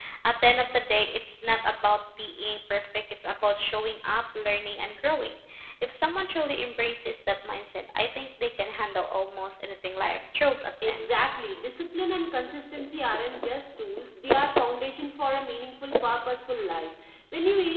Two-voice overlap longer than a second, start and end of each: none

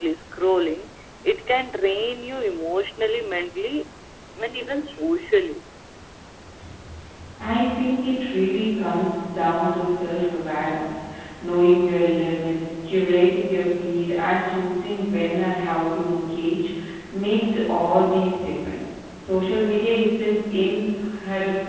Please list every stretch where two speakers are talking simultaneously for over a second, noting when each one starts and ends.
none

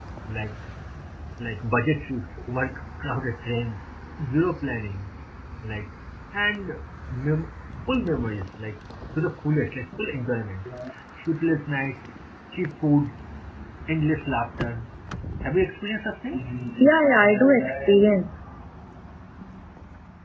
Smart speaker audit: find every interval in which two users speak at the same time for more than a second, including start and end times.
none

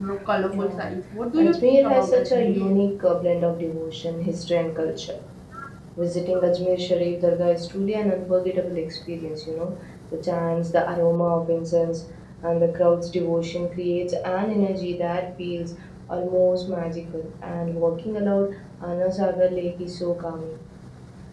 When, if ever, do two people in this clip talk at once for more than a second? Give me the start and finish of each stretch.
1.4-2.7

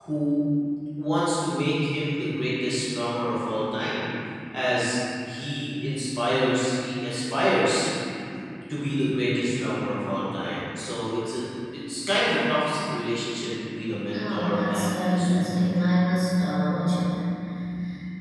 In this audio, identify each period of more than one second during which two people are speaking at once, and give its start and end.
14.1-15.5

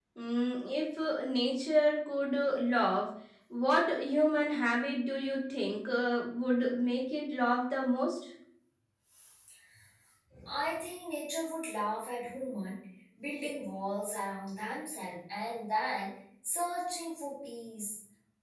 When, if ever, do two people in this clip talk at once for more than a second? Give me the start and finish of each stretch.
none

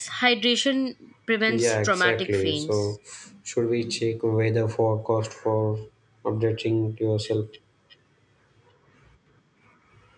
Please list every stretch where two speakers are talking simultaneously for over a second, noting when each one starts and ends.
1.5-2.9

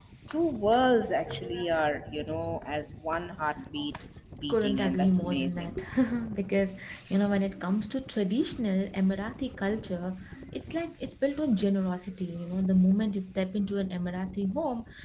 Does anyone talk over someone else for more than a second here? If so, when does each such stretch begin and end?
4.5-5.7

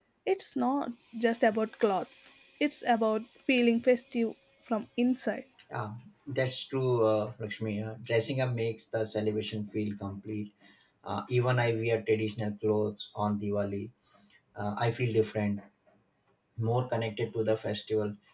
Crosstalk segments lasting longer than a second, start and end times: none

